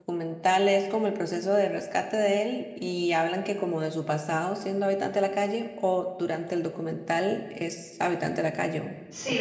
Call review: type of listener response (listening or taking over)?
taking over